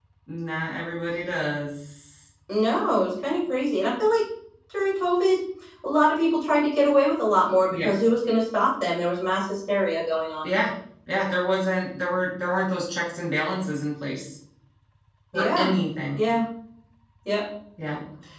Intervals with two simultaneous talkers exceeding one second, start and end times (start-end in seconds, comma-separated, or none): none